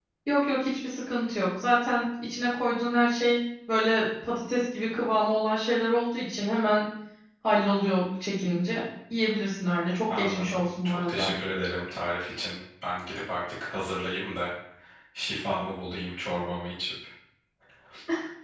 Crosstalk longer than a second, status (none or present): present